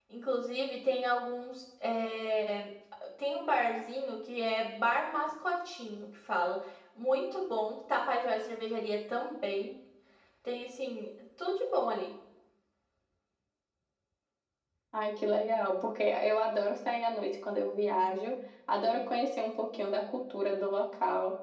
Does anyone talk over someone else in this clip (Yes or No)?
No